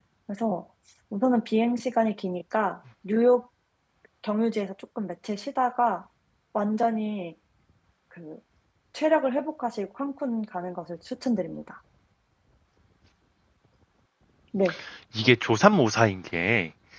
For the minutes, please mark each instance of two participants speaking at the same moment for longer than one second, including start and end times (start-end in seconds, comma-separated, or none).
none